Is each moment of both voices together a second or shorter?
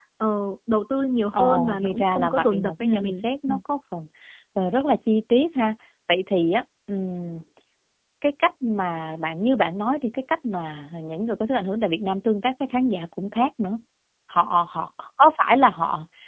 No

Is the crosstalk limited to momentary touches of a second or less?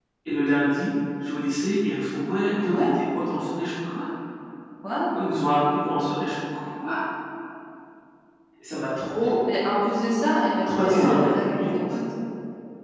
No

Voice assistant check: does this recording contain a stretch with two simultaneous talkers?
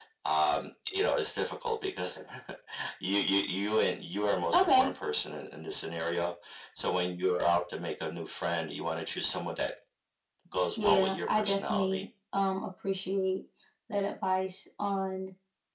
Yes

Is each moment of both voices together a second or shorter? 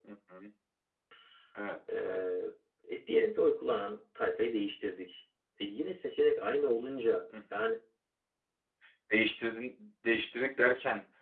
Yes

